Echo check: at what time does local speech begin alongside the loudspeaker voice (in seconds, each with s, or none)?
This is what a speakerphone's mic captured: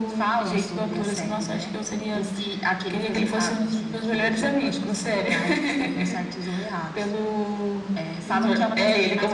8.2 s